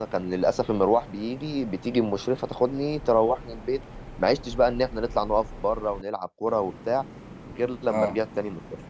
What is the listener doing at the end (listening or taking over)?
listening